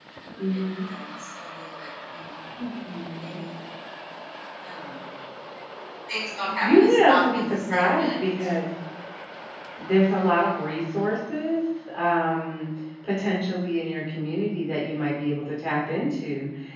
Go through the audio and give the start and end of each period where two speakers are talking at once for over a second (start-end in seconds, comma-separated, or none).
6.6-8.1